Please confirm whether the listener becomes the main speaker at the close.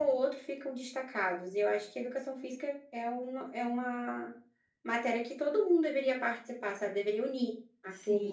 Yes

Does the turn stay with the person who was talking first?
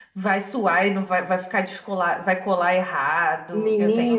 No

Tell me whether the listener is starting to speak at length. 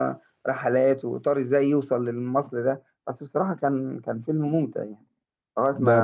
Yes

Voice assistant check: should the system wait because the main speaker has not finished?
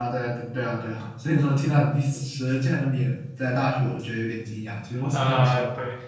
No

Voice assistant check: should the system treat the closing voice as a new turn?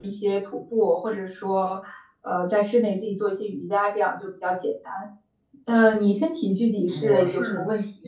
Yes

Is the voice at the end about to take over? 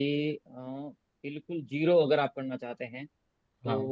No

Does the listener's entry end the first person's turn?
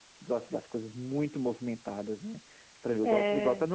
No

